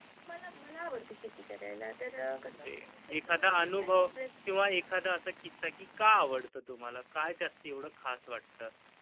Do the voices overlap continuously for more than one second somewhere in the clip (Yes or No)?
Yes